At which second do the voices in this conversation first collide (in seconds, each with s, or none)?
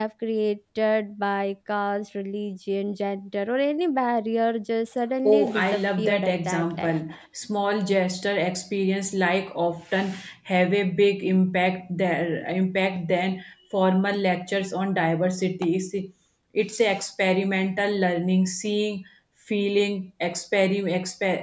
5.2 s